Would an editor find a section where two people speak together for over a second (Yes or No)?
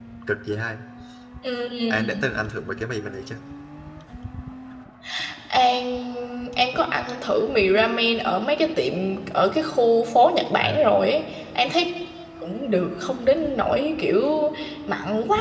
No